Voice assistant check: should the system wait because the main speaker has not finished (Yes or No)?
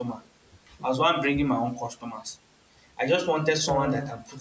Yes